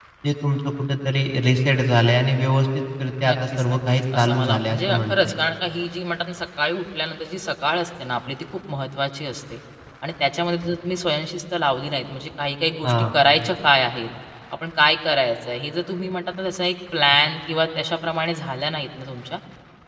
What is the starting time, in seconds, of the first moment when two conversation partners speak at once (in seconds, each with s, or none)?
3.2 s